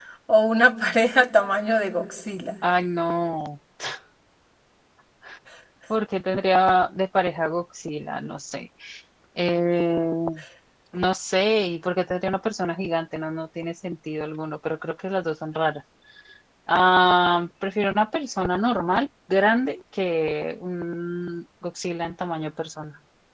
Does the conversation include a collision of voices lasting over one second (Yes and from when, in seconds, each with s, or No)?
No